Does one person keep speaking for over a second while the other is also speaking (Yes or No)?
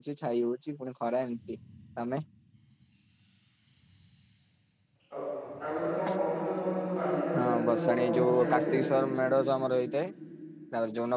Yes